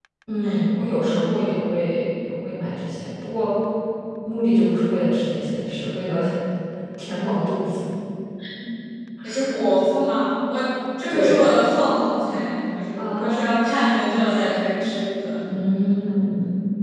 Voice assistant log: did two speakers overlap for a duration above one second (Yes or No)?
Yes